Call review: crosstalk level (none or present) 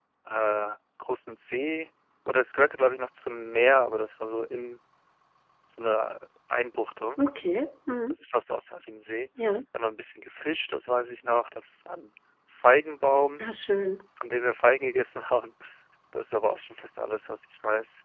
none